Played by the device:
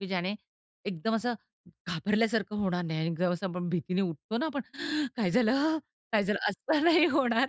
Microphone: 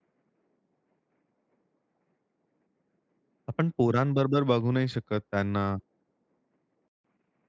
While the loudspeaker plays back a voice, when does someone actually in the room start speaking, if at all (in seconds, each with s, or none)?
3.5 s